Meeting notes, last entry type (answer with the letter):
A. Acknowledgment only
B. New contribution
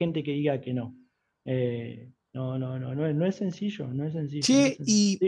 B